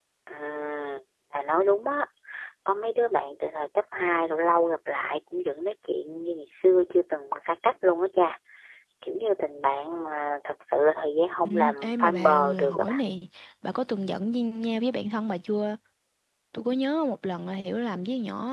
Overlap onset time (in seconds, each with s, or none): 11.4 s